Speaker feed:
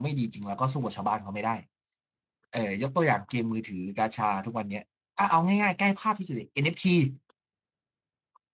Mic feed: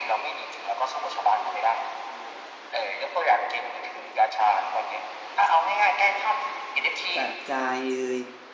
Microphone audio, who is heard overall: both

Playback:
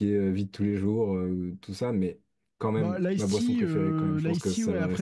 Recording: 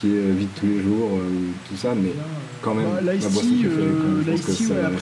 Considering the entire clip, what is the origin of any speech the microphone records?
both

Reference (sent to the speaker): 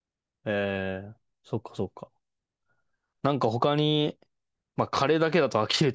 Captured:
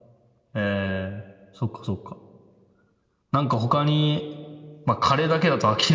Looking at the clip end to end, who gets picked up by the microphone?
echo only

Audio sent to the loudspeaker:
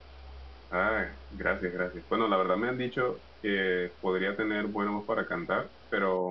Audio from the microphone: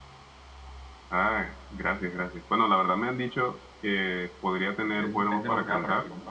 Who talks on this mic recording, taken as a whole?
both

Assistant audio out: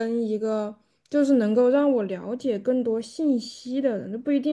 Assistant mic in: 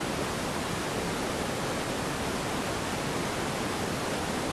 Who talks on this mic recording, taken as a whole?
neither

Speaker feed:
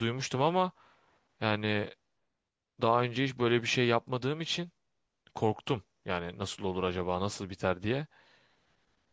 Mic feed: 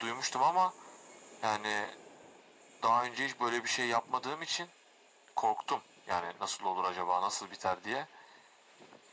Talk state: echo only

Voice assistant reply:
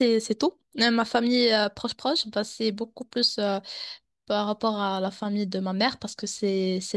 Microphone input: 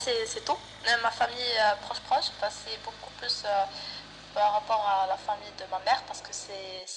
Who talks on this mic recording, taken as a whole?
echo only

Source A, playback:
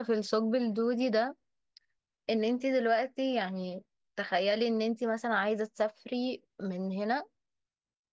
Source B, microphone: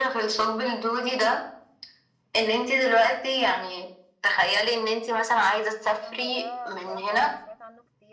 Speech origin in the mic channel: both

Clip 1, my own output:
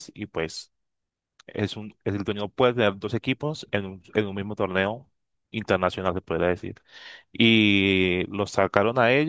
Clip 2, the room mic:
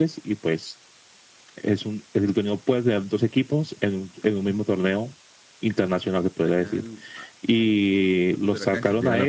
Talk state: both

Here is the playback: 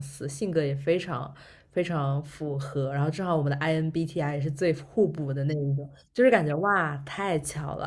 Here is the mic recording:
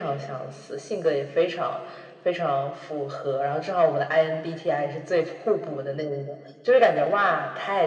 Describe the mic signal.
echo only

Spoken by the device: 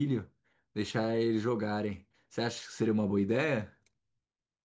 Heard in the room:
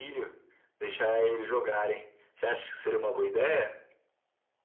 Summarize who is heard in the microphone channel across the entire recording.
echo only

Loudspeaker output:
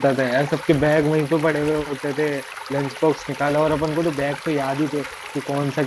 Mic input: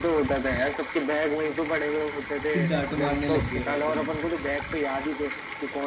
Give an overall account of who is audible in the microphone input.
both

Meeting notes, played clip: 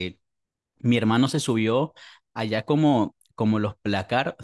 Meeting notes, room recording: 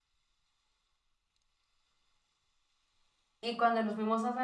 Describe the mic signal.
user only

